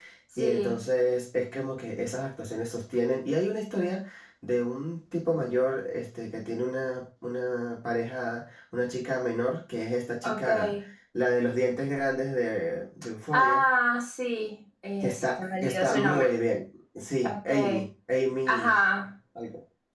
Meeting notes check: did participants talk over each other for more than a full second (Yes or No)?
Yes